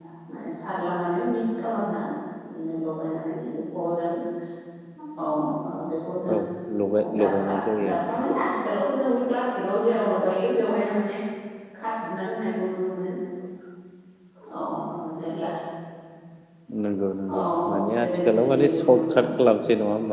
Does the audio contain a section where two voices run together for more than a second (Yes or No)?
Yes